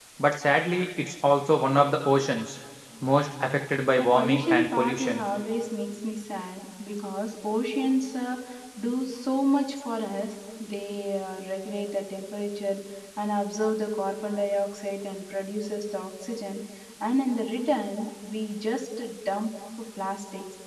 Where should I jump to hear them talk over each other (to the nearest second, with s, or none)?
4 s